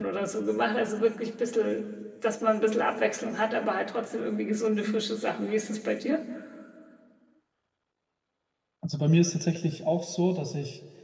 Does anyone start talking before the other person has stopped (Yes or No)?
No